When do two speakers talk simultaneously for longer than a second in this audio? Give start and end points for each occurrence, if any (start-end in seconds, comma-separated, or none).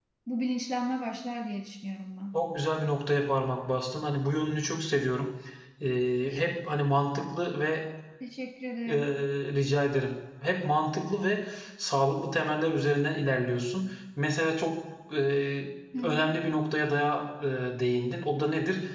none